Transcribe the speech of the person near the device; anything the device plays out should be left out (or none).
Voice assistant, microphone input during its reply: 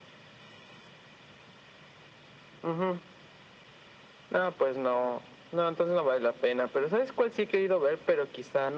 none